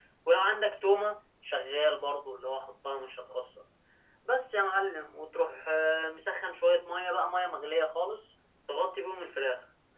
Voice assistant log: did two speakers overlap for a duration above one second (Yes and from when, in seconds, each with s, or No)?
No